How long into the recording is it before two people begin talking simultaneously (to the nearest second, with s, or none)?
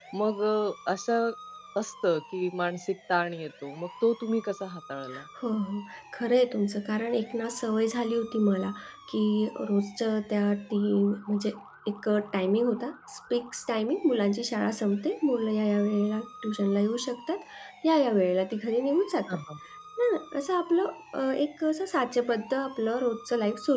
none